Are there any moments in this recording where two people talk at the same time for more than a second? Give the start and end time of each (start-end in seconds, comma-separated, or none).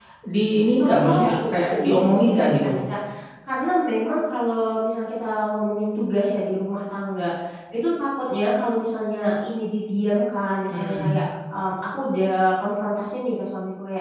0.8-2.7